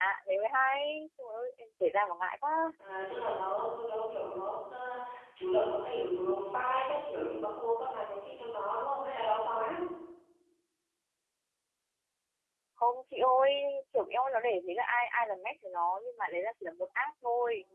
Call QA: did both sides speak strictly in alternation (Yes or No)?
Yes